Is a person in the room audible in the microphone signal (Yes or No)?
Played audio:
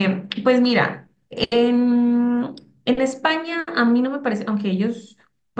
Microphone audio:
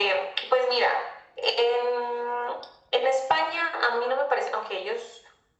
No